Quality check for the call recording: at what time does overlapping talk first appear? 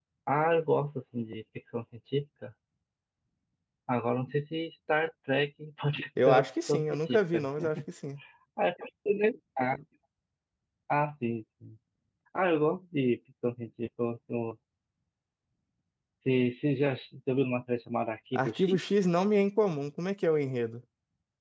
6.2 s

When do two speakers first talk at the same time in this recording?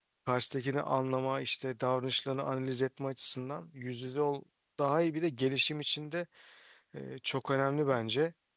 none

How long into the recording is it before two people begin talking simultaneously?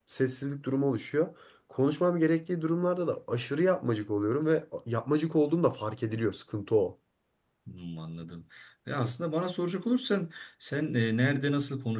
none

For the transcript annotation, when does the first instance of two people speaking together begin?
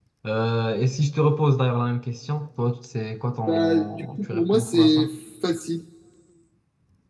3.5 s

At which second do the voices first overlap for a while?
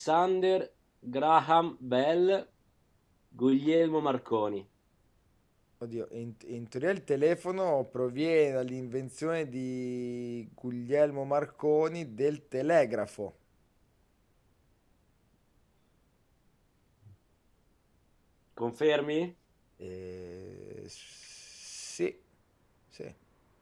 none

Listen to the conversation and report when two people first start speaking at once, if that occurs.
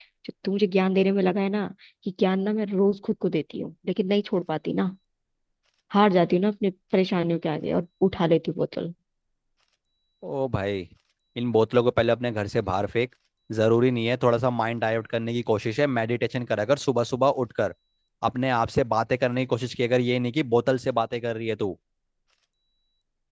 none

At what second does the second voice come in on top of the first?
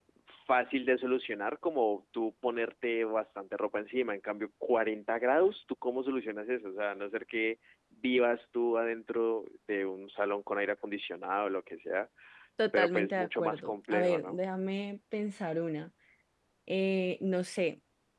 12.7 s

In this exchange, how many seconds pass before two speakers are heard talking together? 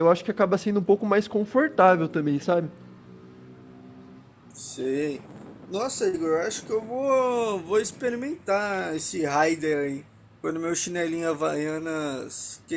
none

